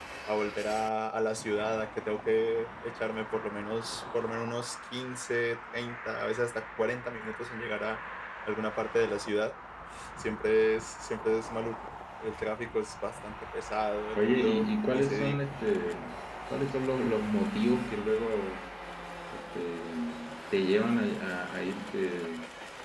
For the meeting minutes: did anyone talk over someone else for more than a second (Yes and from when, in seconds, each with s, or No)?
Yes, from 14.2 s